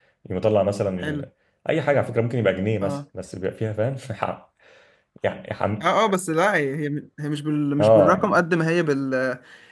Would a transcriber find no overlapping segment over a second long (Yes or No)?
Yes